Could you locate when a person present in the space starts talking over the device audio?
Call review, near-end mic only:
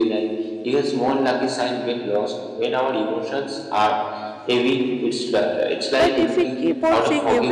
6 s

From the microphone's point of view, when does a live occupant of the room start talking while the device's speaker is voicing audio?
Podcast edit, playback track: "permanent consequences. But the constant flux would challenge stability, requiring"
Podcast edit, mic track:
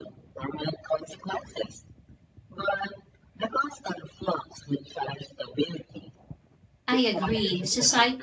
7 s

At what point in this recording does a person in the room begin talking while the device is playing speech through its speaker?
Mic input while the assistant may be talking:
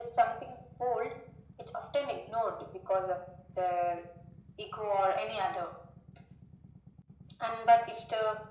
none

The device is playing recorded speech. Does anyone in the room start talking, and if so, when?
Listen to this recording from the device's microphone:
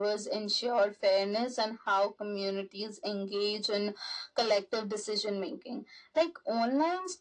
none

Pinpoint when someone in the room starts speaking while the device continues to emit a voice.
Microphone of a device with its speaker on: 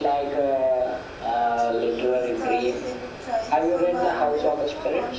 2 s

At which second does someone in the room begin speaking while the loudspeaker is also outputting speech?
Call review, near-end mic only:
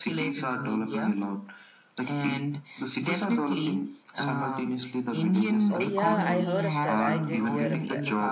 6 s

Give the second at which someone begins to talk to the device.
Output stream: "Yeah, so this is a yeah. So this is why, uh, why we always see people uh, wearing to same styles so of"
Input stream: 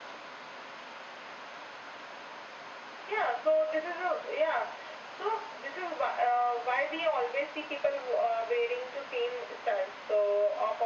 none

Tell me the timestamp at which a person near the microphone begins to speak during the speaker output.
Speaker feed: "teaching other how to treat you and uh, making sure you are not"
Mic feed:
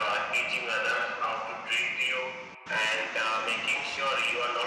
none

